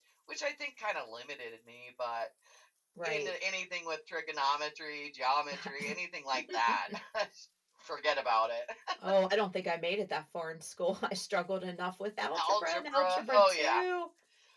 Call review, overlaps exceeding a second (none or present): present